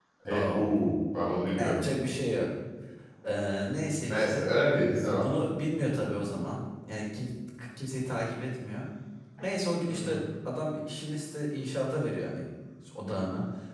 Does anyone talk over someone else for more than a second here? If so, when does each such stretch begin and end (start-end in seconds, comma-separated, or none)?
none